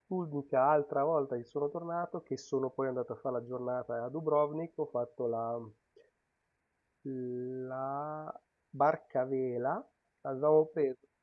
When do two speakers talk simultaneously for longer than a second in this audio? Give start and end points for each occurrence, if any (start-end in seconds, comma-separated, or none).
none